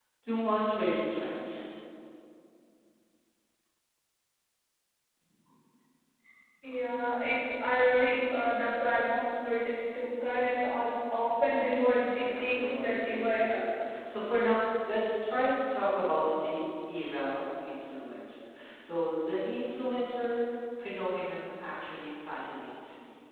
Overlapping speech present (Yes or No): Yes